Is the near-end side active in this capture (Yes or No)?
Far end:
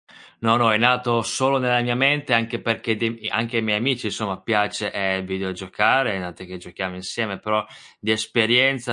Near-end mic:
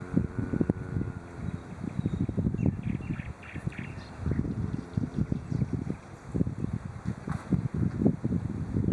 No